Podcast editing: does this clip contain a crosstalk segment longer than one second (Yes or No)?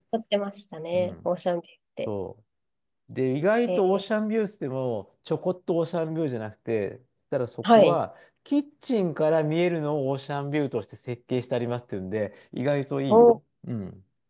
No